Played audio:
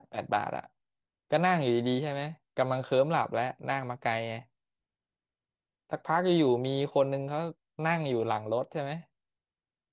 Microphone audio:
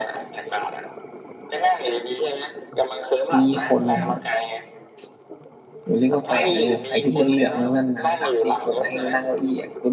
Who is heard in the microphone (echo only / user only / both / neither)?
both